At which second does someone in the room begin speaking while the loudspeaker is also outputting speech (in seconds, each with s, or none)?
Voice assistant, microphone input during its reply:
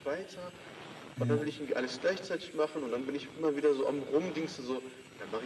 1.2 s